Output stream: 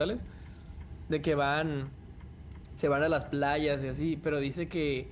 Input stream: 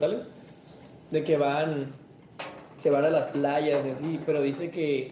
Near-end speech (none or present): none